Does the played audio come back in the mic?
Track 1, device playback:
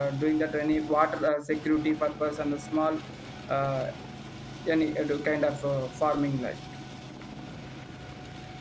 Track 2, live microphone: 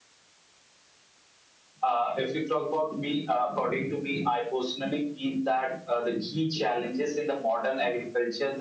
No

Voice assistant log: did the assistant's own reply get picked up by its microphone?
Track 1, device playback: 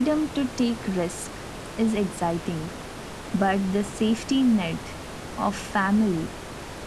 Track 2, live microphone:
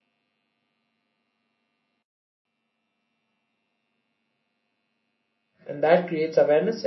No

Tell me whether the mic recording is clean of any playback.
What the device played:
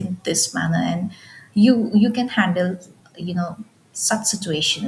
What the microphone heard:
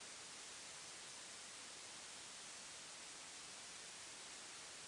Yes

